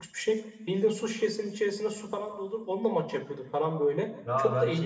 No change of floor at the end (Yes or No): No